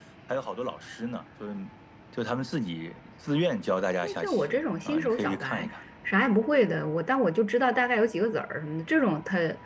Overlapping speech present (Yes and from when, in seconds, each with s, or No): Yes, from 4.0 s